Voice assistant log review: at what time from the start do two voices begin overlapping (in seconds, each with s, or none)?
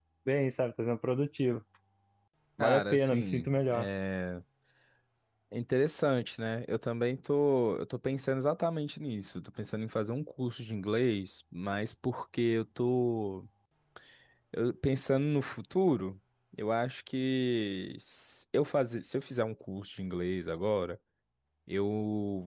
2.6 s